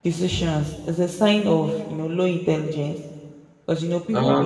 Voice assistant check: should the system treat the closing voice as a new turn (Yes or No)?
No